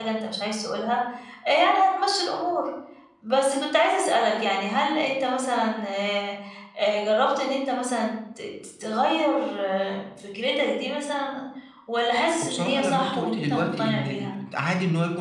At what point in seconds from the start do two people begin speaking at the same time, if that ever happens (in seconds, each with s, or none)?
12.4 s